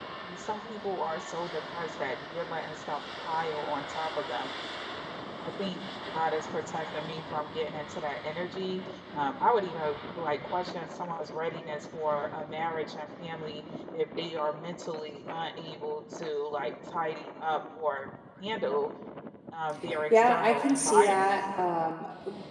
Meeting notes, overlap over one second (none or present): present